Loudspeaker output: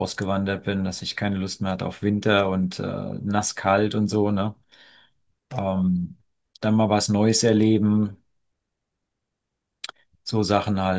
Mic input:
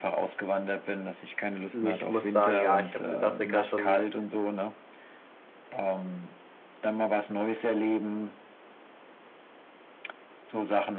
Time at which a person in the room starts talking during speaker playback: 1.7 s

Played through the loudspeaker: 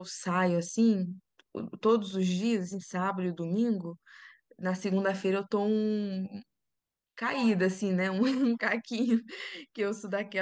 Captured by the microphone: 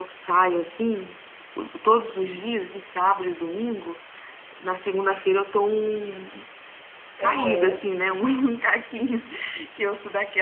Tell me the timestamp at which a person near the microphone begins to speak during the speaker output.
7.2 s

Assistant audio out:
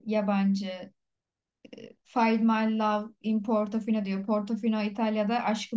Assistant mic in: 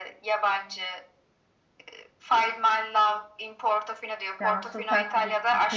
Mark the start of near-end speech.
4.4 s

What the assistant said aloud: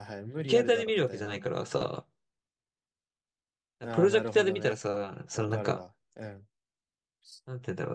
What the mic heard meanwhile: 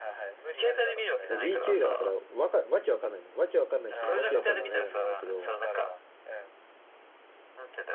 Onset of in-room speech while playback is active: 1.3 s

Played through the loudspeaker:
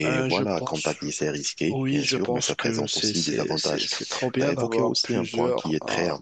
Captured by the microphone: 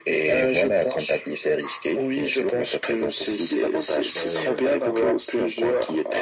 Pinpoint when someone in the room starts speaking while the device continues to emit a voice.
4.1 s

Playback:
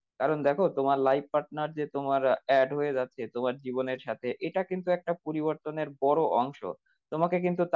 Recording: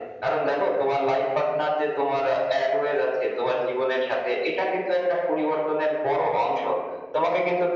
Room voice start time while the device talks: none

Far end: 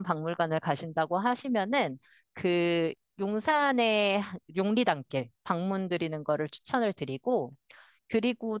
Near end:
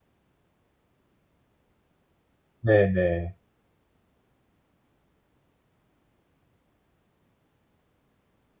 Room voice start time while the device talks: 2.6 s

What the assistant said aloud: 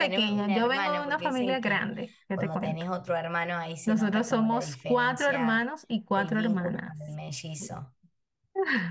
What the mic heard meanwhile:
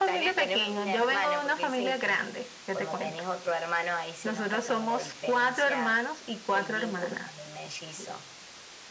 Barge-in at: none

